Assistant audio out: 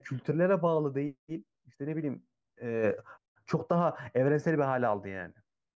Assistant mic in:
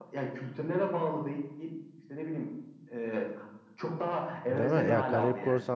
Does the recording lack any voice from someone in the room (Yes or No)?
No